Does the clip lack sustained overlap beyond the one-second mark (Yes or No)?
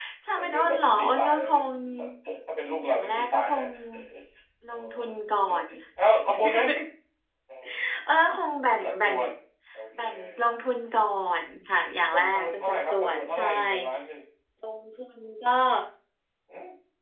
No